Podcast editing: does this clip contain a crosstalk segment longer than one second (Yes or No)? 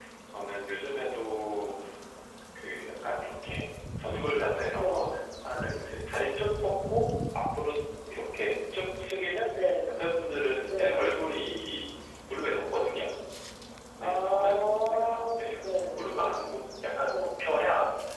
Yes